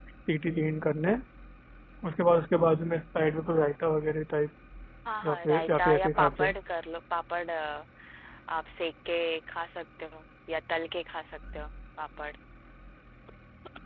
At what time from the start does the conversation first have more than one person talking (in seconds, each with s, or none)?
5.2 s